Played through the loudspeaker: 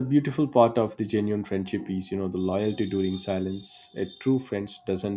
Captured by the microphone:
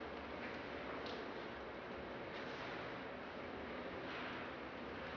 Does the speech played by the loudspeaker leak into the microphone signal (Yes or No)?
No